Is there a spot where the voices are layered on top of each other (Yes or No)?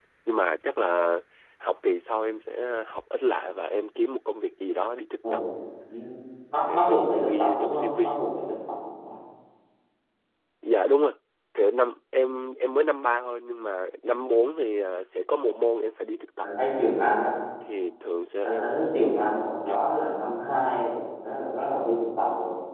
Yes